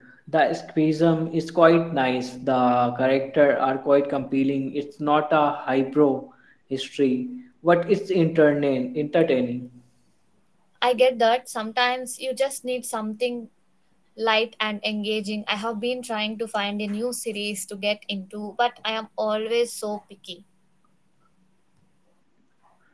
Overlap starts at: none

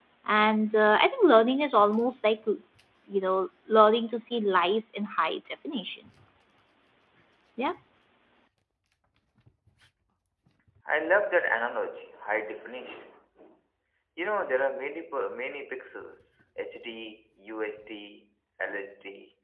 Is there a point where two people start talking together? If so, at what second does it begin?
none

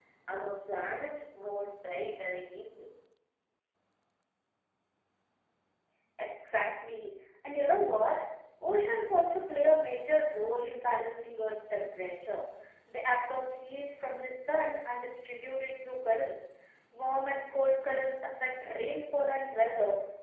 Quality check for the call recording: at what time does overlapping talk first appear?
none

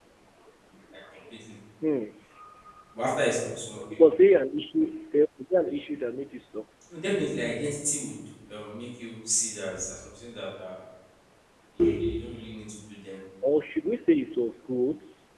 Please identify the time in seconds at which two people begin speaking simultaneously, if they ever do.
none

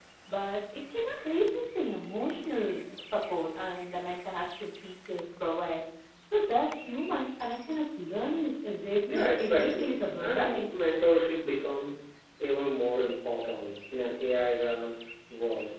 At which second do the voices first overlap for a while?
9 s

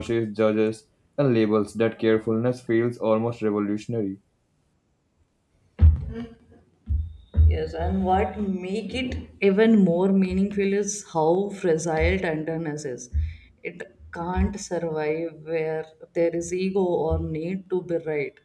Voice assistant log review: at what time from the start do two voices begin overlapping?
none

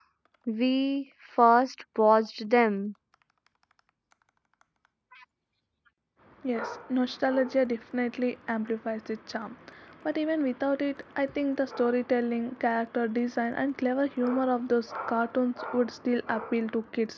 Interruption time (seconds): none

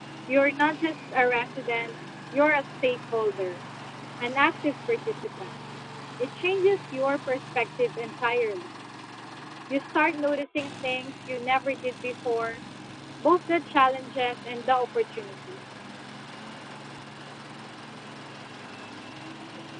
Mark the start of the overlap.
none

